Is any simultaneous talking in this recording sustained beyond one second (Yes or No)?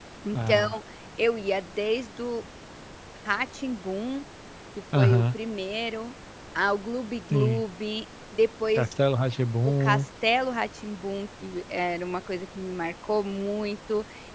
No